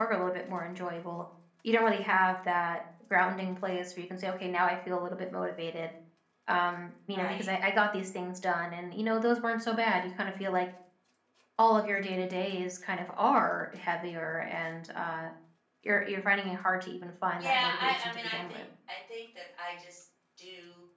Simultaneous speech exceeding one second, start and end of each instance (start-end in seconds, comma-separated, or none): 17.4-18.6